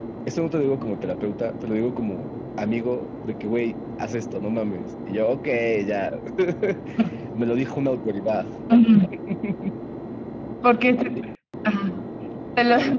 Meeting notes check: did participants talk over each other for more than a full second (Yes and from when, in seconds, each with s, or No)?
No